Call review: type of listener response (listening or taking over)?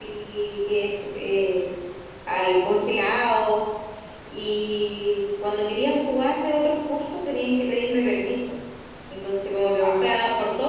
listening